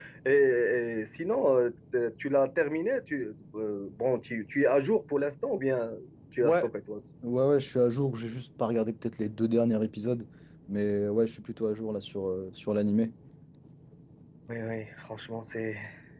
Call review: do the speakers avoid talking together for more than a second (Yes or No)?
Yes